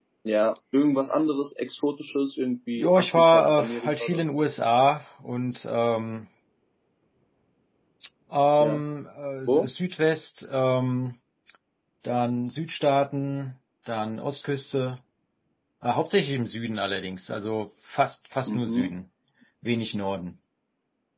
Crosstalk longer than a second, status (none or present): present